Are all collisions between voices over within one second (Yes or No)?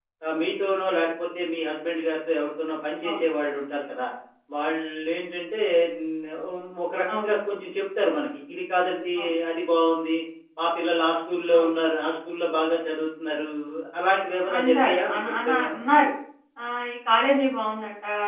No